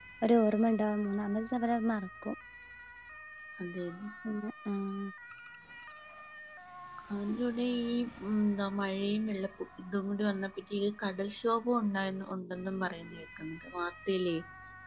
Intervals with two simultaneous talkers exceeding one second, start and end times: none

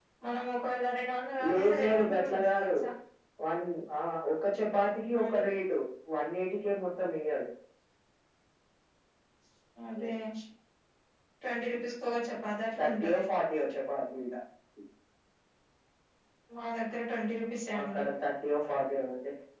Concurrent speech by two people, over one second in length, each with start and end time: 1.5-2.7

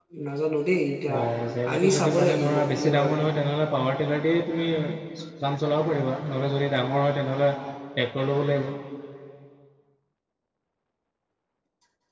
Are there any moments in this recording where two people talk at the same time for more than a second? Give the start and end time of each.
1.7-3.1

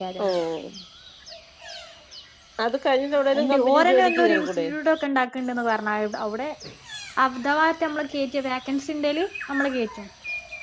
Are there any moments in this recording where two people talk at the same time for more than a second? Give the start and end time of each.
3.3-4.7

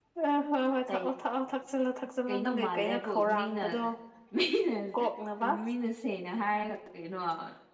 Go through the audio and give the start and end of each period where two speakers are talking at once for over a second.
2.3-3.8

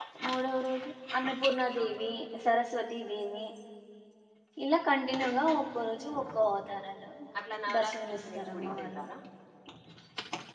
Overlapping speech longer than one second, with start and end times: 7.8-9.0

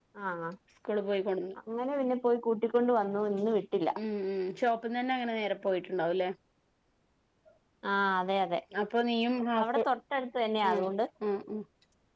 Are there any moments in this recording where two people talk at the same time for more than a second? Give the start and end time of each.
none

